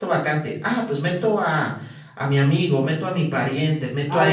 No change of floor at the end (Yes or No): No